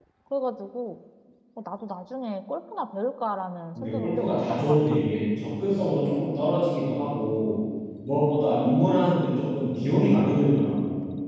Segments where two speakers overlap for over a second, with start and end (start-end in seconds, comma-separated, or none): 3.8-5.0